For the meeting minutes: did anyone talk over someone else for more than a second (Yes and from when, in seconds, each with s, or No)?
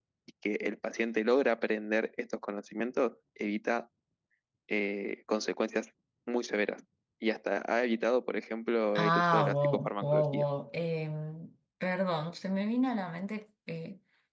Yes, from 9.0 s